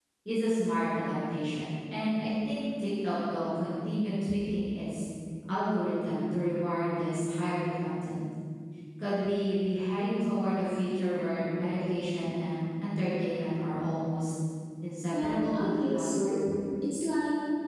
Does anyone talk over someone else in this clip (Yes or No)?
Yes